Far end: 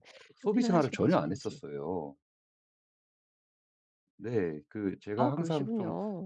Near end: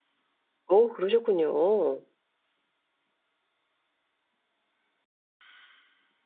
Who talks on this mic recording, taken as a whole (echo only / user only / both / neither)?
user only